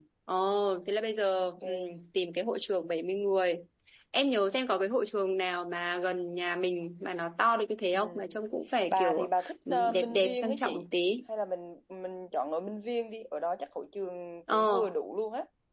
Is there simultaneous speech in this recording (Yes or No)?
Yes